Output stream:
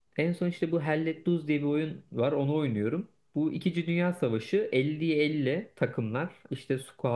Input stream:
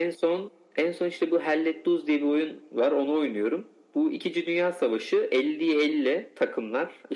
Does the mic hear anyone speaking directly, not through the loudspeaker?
No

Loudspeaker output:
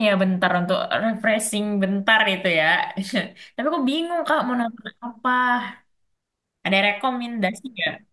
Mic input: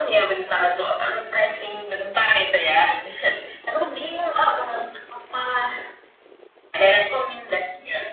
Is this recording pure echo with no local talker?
Yes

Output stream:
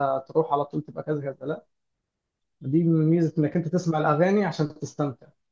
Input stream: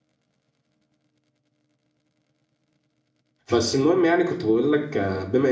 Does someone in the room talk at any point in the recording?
Yes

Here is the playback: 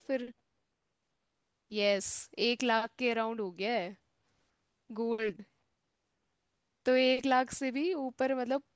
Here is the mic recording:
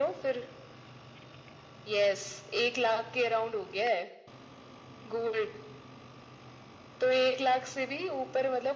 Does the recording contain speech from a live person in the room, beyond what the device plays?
No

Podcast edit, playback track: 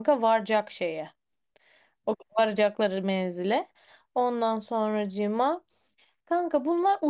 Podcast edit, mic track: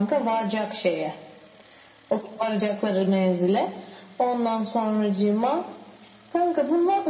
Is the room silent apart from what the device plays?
Yes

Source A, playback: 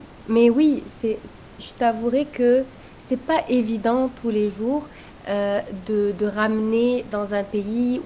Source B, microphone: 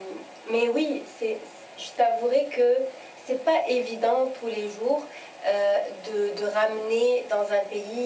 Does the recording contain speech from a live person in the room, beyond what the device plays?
No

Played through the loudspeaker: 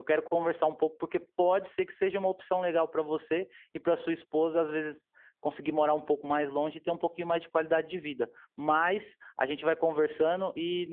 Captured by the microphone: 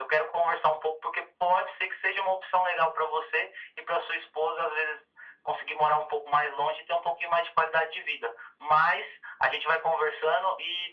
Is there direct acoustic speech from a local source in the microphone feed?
No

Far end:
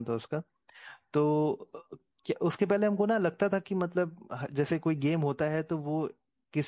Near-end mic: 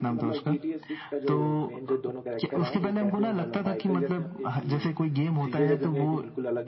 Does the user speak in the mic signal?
Yes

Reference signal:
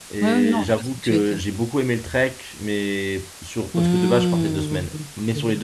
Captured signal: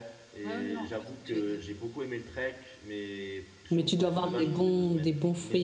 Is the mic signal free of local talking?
No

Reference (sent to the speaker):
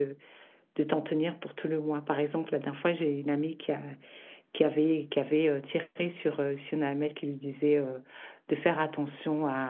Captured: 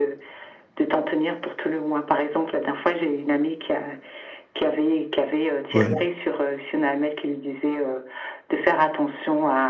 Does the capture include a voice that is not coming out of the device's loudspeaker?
Yes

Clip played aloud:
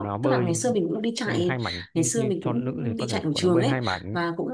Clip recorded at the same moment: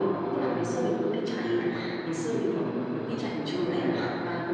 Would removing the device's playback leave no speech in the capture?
Yes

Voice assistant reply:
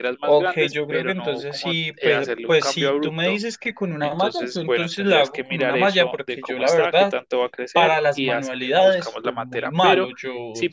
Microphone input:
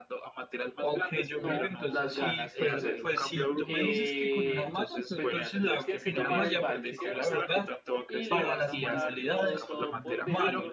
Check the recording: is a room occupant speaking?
Yes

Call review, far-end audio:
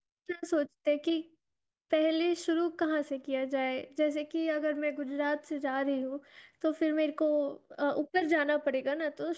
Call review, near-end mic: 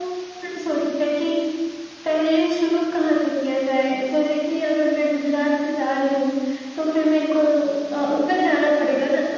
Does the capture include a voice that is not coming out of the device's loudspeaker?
No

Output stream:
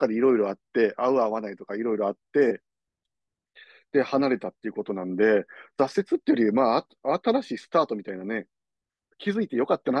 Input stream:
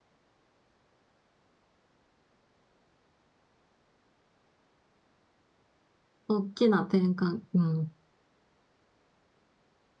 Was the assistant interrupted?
Yes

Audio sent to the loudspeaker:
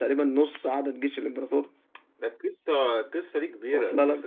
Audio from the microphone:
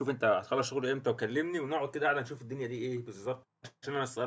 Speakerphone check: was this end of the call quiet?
No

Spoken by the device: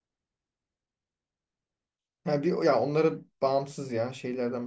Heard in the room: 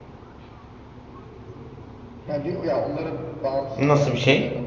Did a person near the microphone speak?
Yes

